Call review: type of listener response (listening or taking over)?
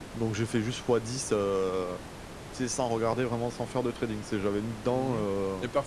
taking over